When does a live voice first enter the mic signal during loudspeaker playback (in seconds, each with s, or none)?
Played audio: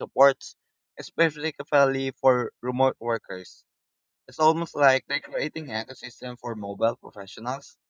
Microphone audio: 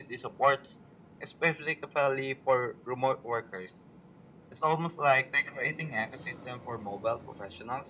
none